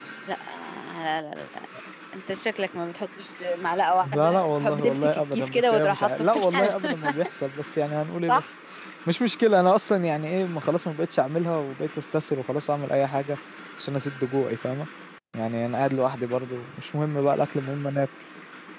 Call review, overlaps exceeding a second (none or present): present